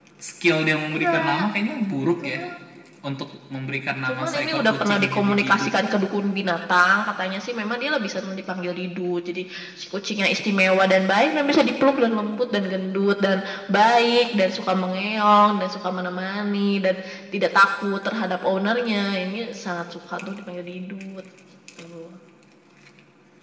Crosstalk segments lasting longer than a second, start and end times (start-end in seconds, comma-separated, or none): 4.1-5.7